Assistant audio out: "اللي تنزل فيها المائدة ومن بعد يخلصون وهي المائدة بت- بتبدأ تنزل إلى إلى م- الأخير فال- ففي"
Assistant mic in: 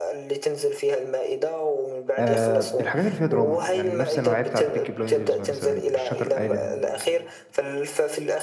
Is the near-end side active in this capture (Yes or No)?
Yes